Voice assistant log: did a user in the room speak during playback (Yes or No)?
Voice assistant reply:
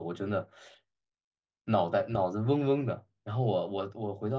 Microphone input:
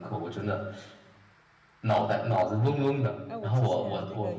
Yes